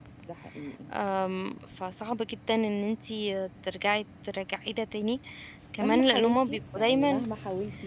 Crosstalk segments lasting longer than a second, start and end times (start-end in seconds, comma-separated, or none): 5.8-7.2